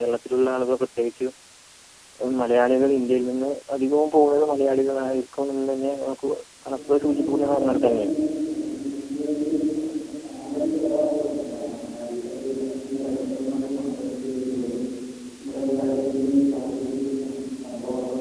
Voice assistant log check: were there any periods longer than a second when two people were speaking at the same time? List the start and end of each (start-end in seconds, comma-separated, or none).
6.7-8.1